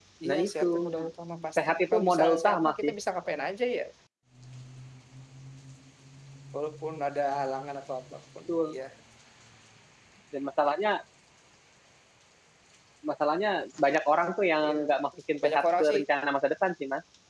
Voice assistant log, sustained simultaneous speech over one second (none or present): present